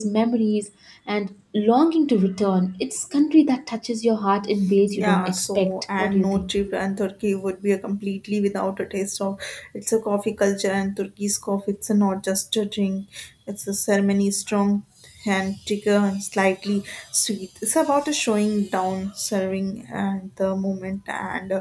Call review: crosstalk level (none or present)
present